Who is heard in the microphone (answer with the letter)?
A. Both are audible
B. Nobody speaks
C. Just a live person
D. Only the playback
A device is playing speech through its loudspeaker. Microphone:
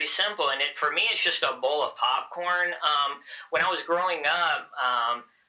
D